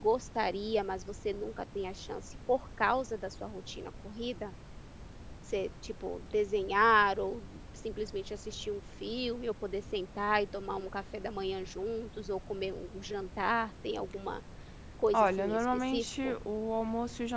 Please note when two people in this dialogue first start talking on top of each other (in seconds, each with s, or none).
15.1 s